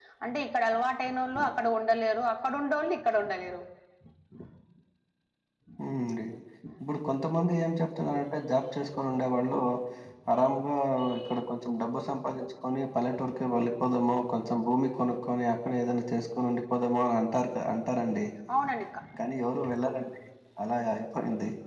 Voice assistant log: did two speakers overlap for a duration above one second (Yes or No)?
No